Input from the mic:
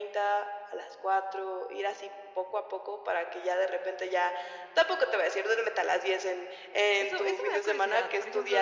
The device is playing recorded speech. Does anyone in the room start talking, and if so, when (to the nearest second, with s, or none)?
7 s